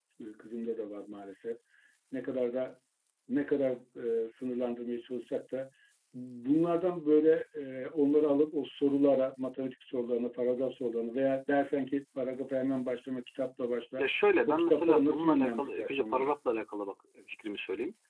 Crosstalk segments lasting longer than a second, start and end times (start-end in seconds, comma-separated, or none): 14.5-16.3